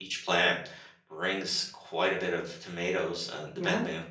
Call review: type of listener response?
listening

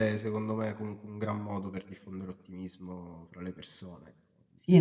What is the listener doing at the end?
taking over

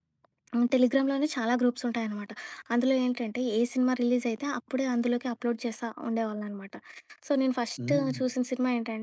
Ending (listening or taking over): listening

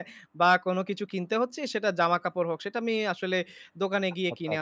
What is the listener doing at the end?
listening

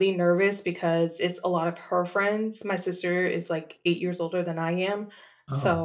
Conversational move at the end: listening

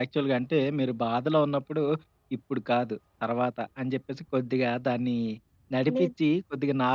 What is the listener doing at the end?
listening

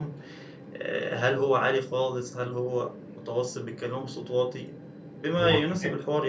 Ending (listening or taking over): listening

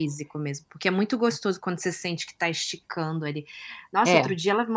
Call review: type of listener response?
listening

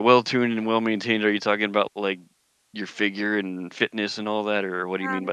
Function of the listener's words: taking over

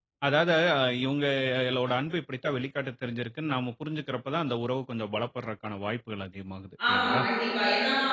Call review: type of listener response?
taking over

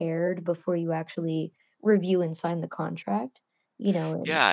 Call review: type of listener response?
taking over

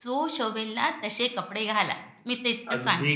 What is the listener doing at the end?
taking over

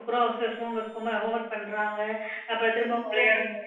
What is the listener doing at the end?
listening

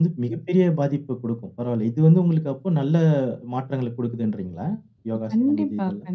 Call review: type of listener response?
taking over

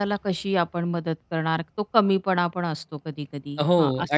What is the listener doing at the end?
taking over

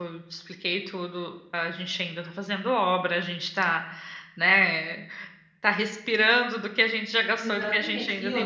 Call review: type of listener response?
taking over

